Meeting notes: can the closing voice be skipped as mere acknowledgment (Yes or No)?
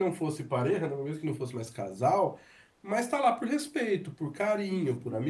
Yes